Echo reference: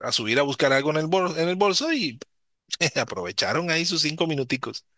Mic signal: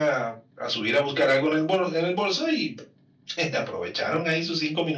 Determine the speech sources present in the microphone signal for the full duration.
echo only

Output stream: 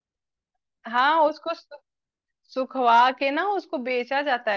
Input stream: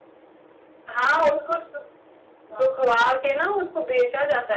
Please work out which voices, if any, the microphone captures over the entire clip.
both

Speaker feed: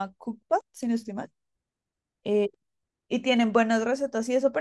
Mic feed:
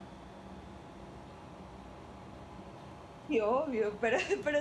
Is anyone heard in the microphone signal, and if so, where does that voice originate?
user only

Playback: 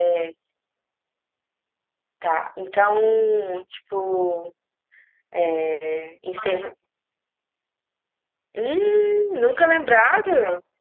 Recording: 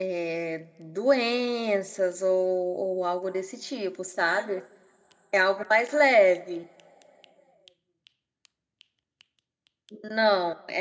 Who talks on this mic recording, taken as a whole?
user only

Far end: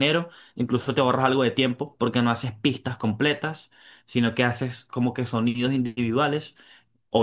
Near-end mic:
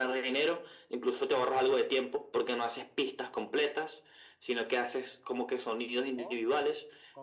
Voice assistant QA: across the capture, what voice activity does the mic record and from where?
both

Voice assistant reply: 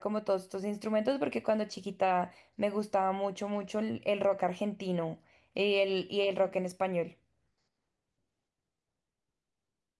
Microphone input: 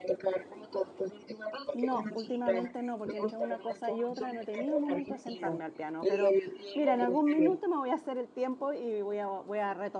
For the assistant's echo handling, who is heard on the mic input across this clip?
both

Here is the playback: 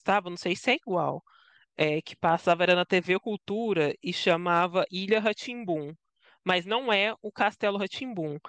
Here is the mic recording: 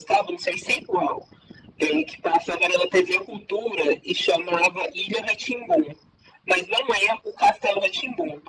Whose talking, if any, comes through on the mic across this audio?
echo only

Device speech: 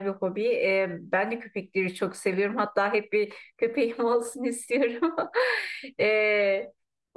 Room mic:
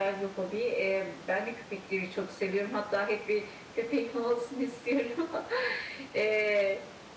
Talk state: echo only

